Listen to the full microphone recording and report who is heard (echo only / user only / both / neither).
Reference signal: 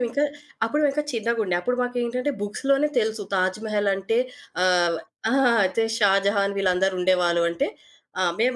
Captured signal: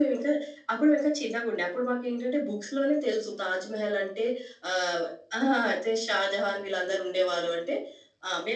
echo only